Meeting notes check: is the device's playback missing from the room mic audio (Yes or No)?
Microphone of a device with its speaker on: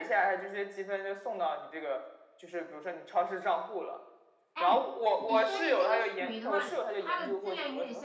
No